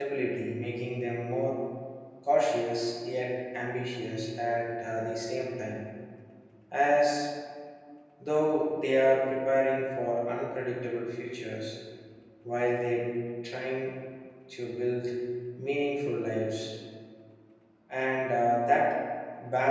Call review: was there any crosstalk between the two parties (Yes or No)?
No